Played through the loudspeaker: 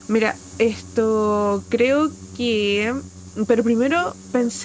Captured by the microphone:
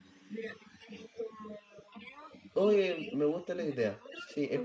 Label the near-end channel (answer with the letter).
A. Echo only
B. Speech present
B